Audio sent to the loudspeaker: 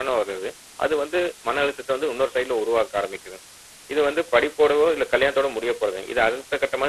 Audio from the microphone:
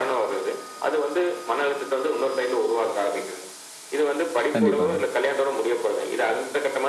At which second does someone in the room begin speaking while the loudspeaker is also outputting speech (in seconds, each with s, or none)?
4.5 s